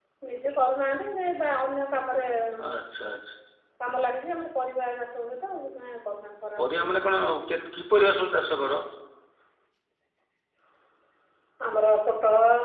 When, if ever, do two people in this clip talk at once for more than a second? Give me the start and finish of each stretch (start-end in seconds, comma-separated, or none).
none